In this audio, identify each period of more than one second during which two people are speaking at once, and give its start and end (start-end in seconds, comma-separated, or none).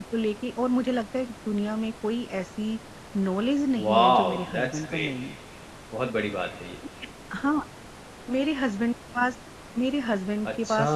3.8-5.1